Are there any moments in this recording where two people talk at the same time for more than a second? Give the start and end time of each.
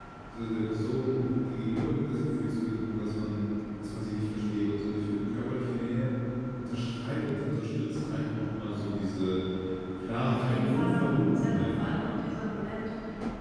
10.2-11.8

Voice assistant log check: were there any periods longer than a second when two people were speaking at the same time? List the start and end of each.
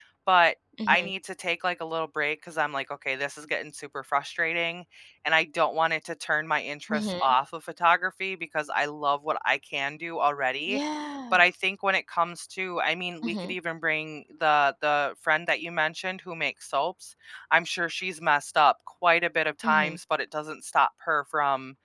none

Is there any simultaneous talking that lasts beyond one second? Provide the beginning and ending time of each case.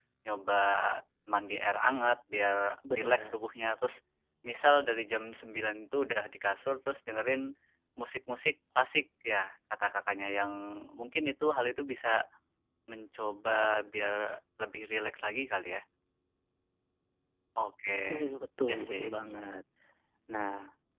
none

